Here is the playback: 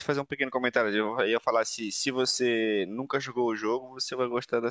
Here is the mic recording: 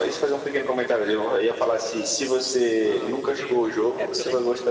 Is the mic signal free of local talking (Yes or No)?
No